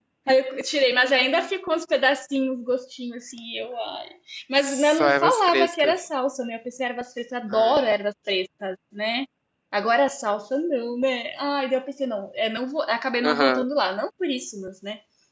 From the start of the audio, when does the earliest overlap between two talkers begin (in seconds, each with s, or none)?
4.6 s